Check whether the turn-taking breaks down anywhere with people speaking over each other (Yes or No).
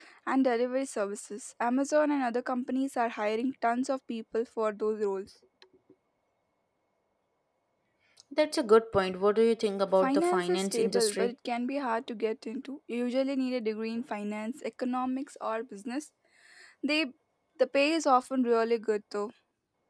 Yes